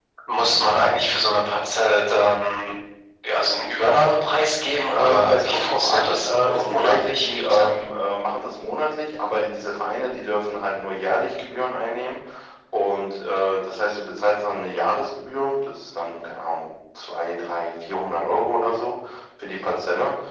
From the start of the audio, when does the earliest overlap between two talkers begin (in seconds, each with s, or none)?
4.9 s